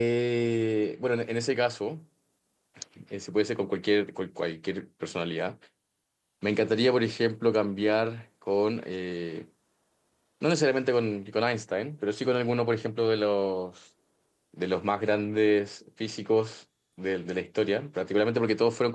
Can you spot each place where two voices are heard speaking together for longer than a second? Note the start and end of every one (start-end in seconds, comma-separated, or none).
none